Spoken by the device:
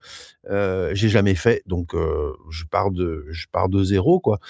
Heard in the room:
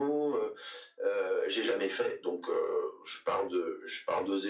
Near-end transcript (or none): none